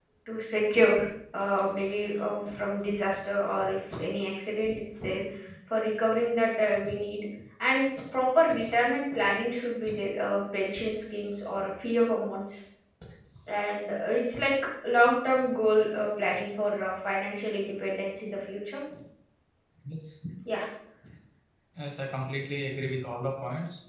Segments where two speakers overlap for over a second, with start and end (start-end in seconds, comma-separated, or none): none